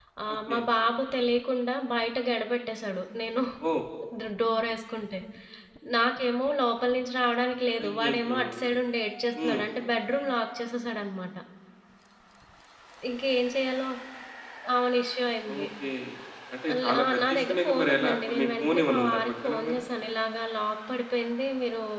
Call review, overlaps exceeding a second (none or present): present